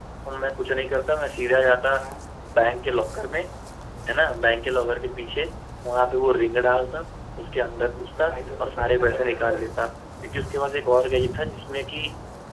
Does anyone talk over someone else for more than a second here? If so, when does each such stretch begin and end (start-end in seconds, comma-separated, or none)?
8.1-9.7